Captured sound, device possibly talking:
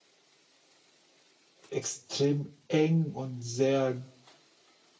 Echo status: none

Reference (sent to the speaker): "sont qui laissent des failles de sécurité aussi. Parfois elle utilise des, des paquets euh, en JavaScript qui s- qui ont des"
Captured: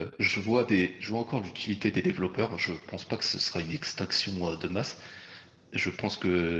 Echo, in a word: none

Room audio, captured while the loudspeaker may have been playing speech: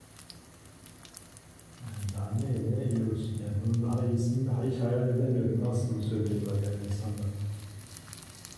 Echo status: none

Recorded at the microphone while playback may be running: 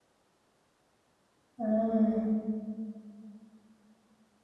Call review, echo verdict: none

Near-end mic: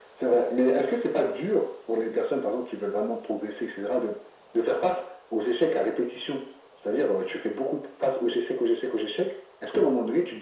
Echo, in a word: present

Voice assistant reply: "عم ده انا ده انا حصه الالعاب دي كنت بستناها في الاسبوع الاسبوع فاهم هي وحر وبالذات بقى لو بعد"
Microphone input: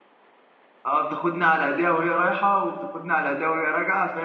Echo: none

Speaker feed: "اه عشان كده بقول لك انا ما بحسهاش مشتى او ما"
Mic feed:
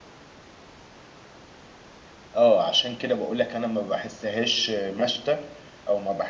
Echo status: present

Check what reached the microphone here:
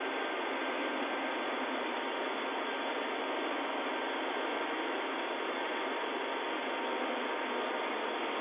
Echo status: none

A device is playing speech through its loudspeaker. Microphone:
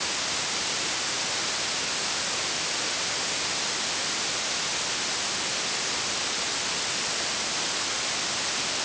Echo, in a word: none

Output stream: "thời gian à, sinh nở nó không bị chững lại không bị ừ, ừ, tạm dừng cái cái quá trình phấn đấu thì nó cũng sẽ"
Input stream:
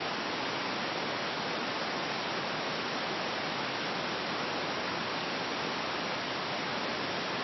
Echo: none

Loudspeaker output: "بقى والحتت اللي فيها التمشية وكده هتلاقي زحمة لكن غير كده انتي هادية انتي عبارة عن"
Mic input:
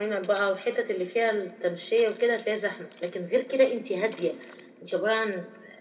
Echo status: present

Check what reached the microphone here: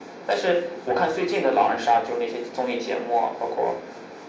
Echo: present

